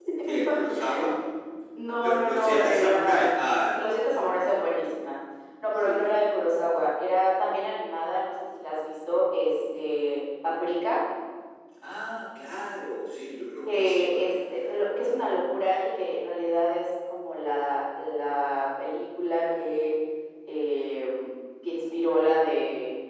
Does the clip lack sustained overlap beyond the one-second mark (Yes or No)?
No